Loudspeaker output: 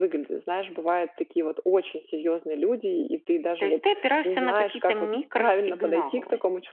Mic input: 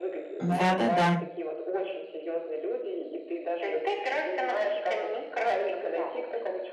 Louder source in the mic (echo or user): user